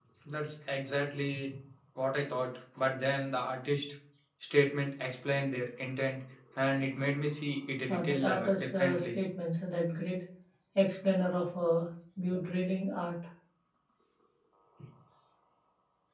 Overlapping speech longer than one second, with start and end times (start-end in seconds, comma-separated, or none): 7.9-9.2